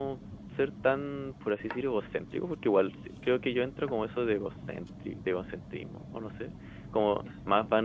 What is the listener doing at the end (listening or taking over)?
listening